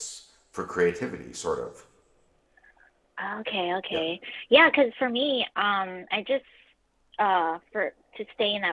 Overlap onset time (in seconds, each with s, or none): none